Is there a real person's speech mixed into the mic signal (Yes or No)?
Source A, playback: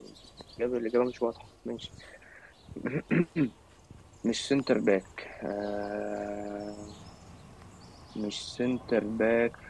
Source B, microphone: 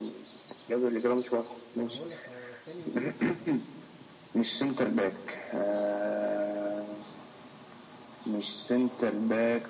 Yes